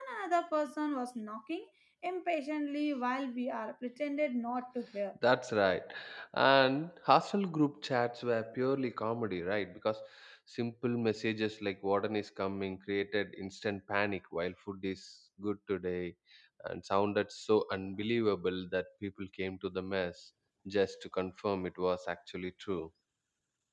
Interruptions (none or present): none